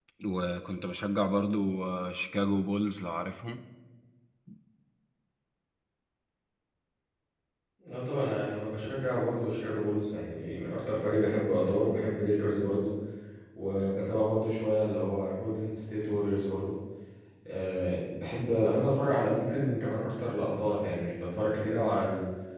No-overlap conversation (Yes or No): Yes